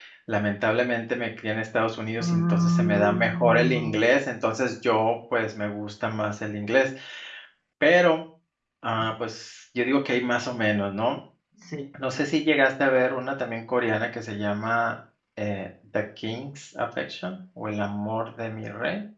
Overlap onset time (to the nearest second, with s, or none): 2 s